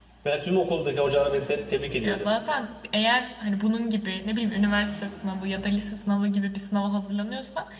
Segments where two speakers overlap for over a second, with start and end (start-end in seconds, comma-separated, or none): none